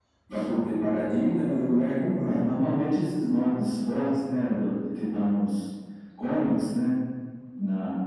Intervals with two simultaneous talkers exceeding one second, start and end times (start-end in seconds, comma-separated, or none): none